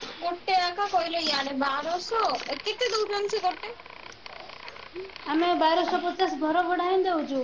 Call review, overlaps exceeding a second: none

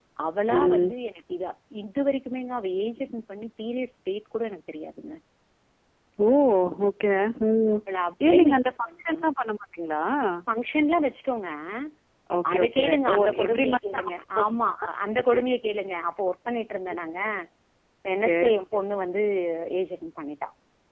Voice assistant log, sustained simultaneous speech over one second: present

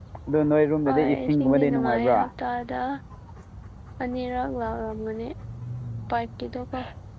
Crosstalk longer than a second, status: present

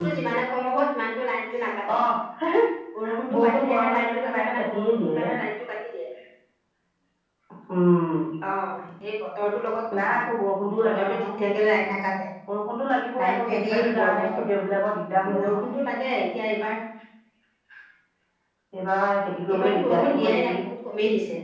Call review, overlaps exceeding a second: present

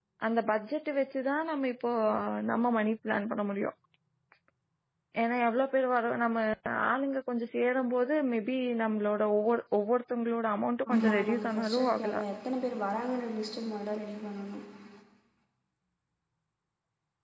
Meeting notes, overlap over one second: present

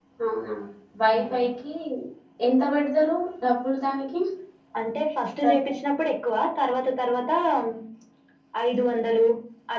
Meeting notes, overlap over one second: none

